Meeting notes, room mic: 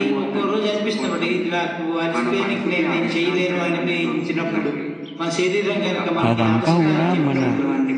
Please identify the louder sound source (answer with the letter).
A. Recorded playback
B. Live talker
B